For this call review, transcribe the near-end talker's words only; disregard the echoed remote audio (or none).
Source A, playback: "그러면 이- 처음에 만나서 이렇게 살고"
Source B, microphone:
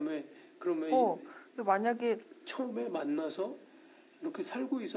어. 근데 만약에